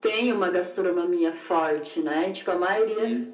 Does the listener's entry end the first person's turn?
No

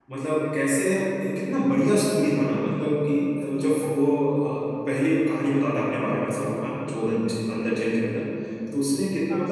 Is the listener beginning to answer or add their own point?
No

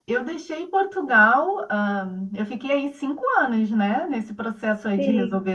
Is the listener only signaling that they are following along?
Yes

